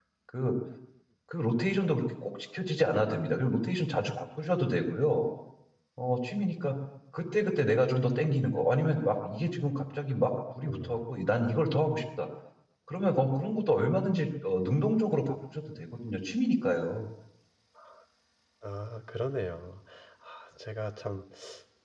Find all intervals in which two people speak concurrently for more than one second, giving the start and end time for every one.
none

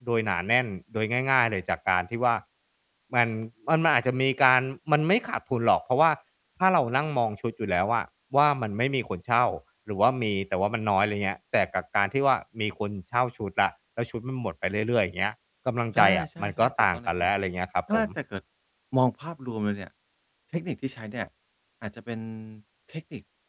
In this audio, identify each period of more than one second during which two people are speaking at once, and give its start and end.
15.9-17.3

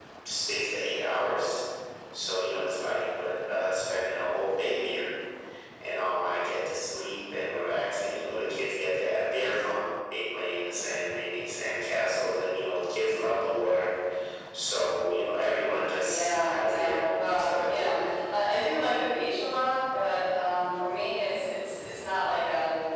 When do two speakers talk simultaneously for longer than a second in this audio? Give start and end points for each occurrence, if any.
16.0-17.9

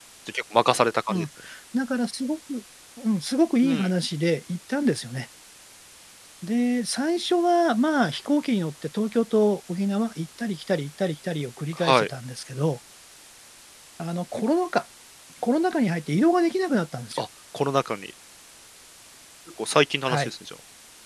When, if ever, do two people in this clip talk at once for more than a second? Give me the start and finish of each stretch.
none

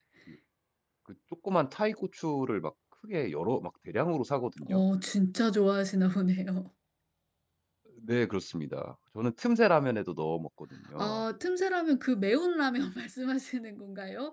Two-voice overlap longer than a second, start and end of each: none

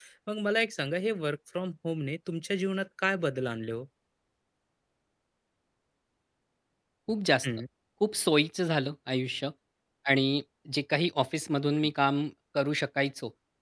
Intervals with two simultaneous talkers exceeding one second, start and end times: none

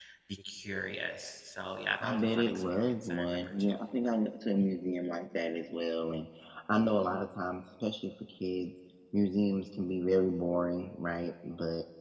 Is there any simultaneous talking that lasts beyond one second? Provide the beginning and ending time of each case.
2.0-3.8

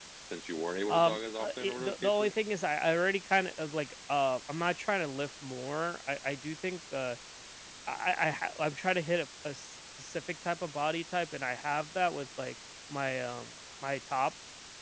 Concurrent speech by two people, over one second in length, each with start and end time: 0.9-2.3

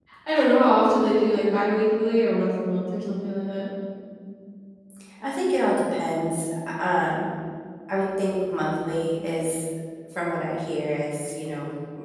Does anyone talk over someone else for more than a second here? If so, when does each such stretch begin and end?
none

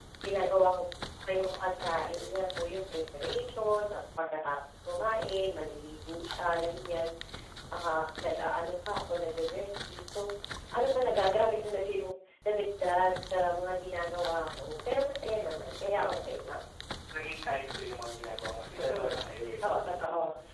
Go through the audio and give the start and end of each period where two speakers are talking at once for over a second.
1.3-2.6

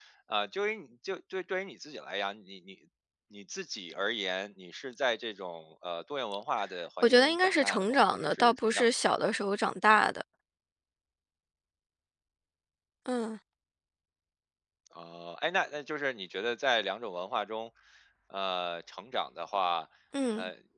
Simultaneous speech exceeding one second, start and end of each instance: 7.0-8.8

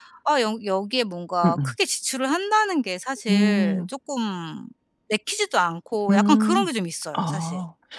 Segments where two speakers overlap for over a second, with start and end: none

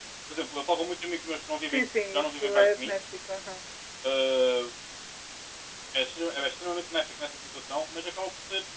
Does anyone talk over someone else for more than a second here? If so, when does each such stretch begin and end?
1.7-3.0

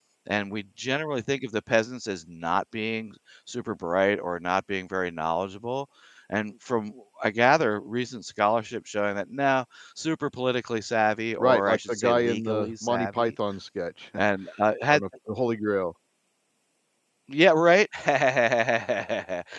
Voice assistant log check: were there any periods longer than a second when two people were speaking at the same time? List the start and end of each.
11.4-13.3

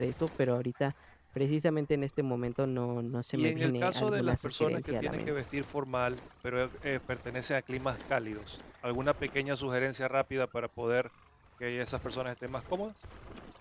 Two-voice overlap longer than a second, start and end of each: 3.3-5.3

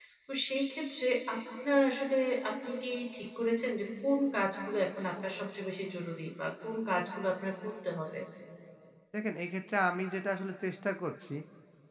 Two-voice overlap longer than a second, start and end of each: none

